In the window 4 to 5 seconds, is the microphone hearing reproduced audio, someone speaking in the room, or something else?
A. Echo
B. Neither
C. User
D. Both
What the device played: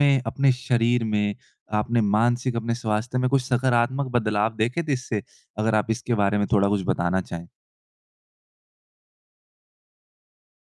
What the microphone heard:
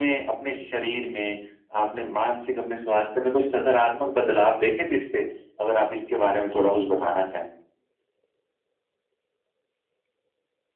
A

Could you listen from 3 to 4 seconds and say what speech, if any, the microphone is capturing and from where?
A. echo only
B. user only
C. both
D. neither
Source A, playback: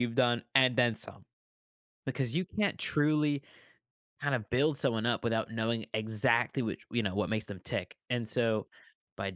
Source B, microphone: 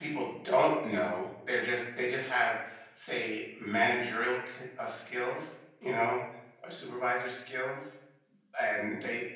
B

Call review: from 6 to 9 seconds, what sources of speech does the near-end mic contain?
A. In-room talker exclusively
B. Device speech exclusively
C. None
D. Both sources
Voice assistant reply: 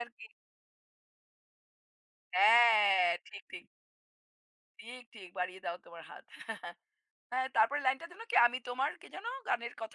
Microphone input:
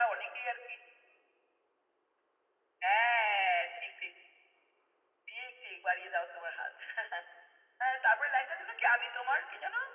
B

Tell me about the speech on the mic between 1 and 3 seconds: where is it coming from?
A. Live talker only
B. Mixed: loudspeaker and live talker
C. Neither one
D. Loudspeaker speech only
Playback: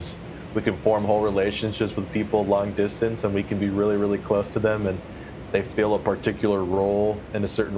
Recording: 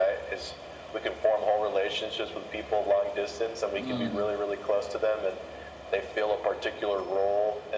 D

